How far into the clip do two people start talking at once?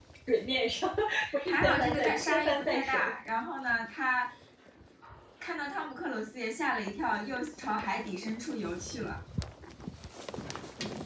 1 s

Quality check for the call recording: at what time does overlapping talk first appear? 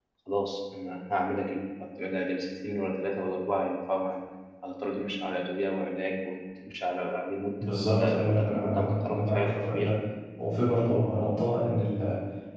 8 s

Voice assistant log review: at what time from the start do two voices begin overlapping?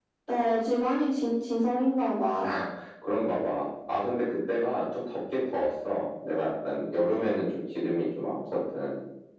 none

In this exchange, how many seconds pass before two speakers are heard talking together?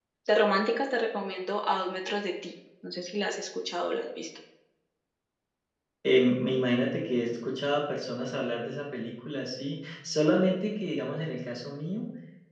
none

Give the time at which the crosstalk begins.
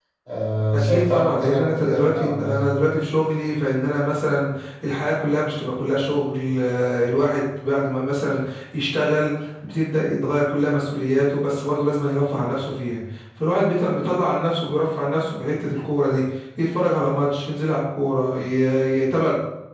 1 s

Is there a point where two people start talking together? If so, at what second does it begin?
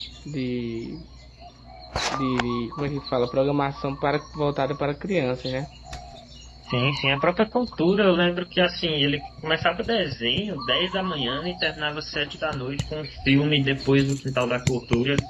none

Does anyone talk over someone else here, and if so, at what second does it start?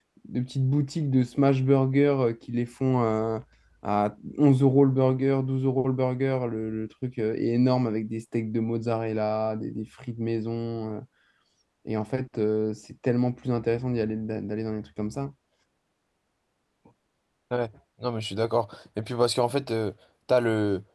none

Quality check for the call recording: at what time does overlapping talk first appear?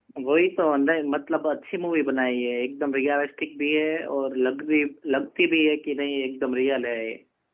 none

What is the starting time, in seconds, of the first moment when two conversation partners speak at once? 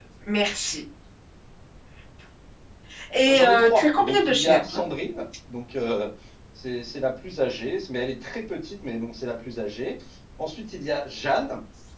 3 s

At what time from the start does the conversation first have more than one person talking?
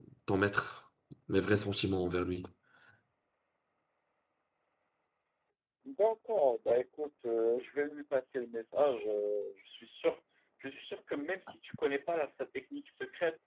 none

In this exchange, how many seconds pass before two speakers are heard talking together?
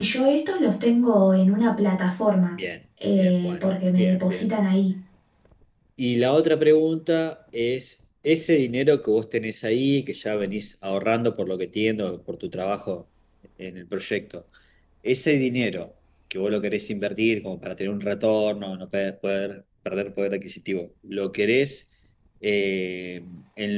3 s

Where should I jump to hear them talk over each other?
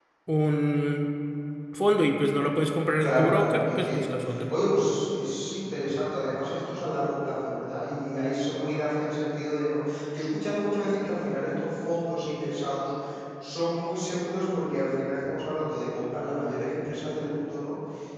3 s

